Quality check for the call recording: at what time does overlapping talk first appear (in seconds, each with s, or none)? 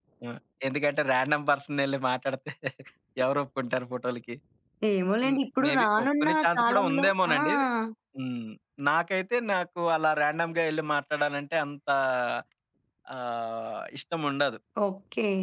5.2 s